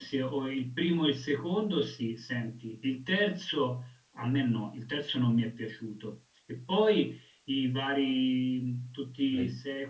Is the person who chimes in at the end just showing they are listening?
Yes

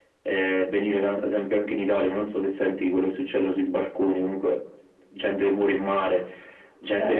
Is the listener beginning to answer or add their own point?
No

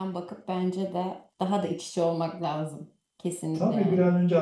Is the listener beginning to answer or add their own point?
Yes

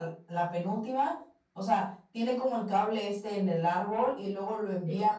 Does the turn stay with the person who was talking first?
Yes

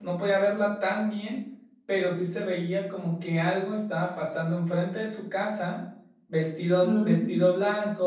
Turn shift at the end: No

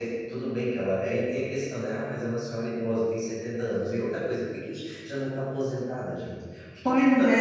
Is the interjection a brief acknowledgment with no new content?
No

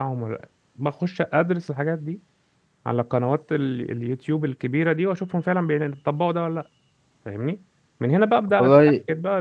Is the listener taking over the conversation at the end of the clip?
No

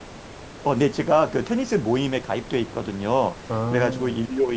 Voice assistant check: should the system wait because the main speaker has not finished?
Yes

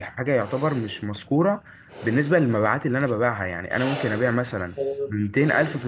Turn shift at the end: No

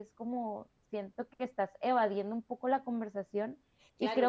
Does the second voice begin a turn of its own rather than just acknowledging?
Yes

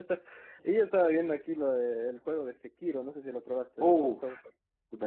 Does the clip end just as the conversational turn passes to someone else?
Yes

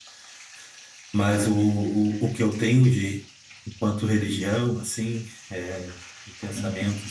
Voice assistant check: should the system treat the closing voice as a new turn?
No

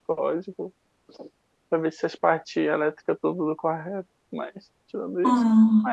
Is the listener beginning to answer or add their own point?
No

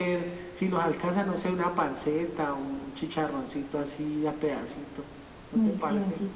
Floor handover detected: Yes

